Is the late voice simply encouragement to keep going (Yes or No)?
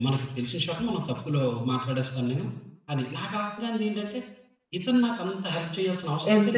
No